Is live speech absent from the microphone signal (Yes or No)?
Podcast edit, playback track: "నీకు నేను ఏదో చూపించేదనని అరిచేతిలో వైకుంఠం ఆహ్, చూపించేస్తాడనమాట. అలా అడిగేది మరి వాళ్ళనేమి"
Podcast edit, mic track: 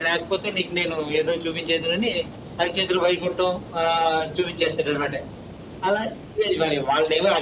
Yes